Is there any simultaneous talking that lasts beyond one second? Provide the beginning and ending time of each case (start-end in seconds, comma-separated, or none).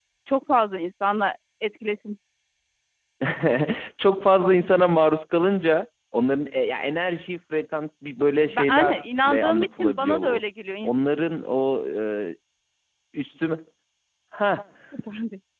8.5-10.4